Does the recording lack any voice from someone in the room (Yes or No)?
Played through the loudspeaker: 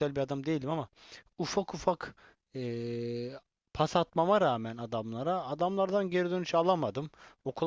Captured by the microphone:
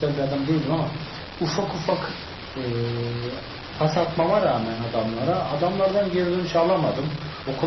Yes